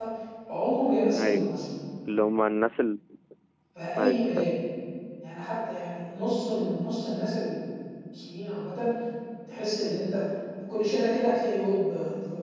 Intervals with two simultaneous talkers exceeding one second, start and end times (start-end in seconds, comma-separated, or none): none